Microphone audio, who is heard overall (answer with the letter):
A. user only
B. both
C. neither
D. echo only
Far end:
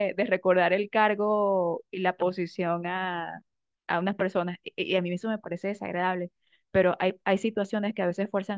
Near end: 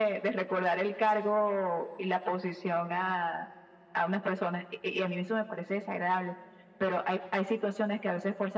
D